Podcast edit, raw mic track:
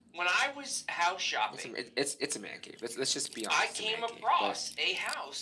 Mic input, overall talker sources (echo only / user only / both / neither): both